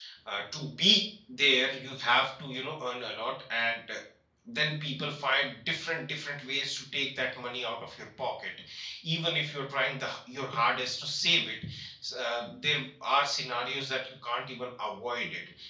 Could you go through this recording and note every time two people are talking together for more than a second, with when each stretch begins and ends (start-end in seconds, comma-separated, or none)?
none